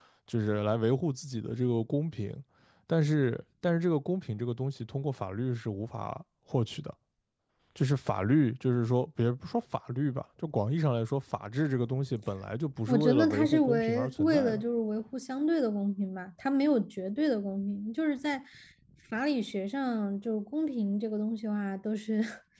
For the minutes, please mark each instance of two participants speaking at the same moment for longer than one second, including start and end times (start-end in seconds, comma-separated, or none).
12.9-14.6